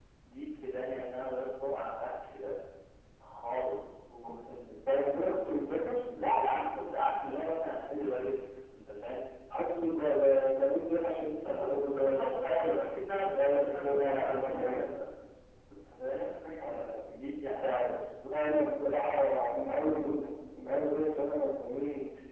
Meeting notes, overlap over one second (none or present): present